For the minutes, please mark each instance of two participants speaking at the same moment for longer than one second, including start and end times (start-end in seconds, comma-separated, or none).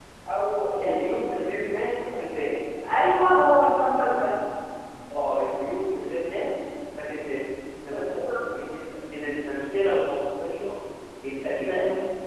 none